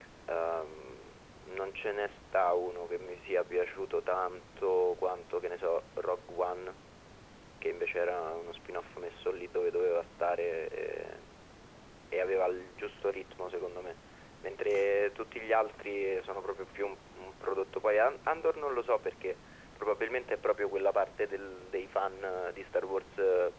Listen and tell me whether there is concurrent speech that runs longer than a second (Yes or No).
No